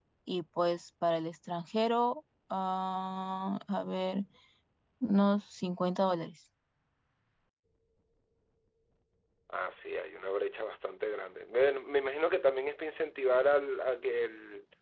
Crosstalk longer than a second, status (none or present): none